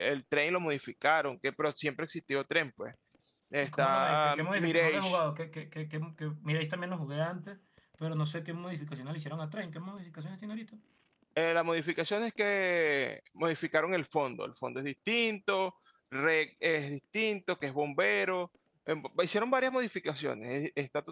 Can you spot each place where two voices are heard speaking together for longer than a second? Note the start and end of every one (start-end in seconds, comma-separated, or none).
3.6-5.2